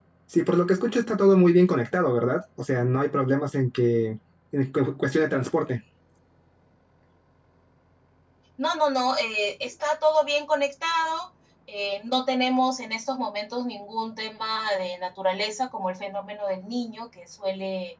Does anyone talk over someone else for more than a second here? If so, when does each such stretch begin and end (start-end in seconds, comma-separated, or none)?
none